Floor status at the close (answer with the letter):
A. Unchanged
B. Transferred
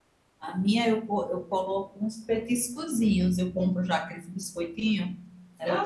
B